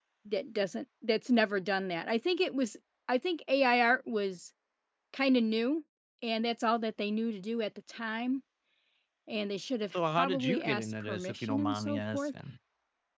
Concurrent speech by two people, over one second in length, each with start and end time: 9.9-12.3

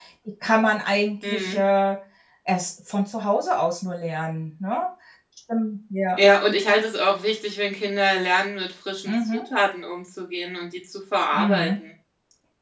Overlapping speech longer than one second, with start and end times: none

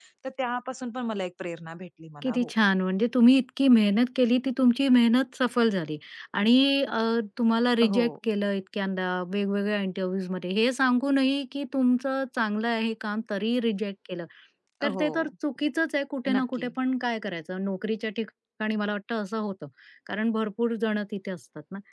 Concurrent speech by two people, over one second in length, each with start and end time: none

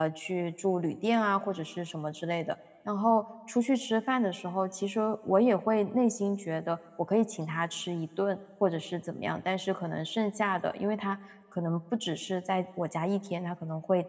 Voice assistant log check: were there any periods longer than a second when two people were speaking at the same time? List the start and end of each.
none

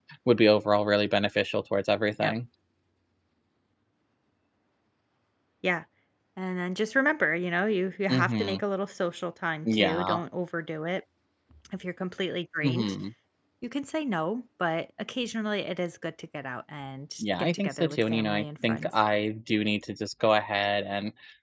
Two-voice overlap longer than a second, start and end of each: 17.2-18.9

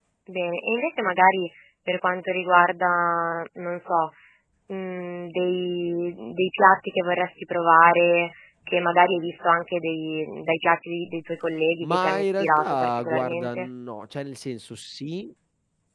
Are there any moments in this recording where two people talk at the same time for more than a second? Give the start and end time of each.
11.8-13.7

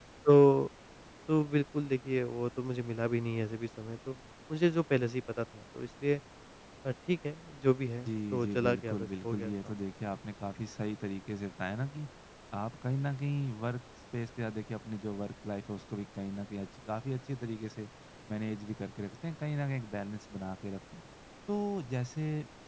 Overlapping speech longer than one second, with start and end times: 8.1-9.7

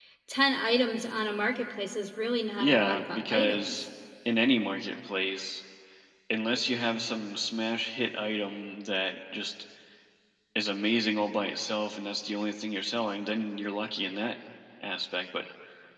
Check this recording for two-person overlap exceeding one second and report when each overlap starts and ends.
2.6-3.8

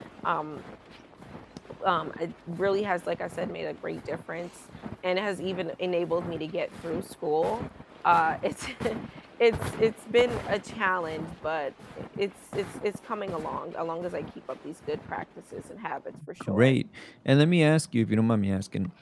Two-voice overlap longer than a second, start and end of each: none

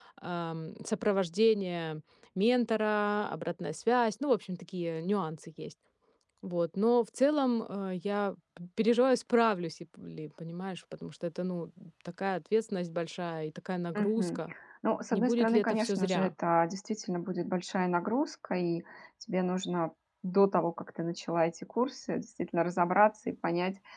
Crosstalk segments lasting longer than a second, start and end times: 15.1-16.3

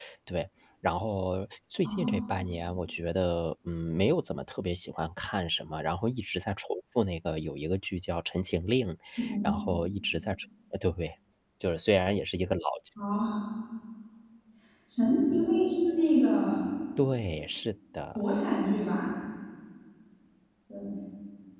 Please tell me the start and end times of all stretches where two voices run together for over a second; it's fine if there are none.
none

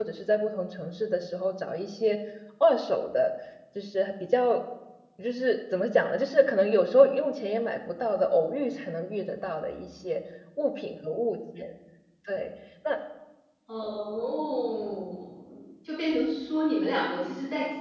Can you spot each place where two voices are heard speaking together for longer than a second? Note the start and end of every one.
none

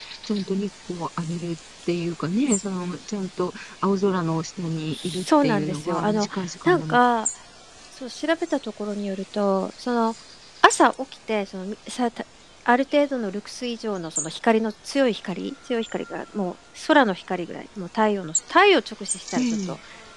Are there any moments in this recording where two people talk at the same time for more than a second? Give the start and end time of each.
4.9-7.0

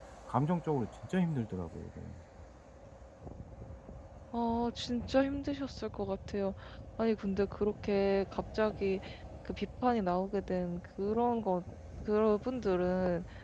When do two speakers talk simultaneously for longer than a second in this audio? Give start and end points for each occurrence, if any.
none

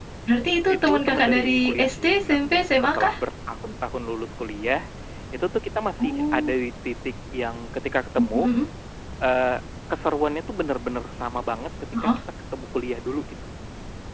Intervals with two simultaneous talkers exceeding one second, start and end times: 0.7-3.1

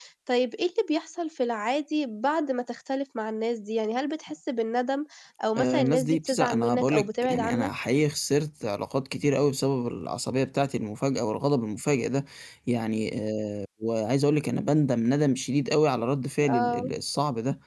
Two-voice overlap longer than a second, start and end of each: 5.6-7.7

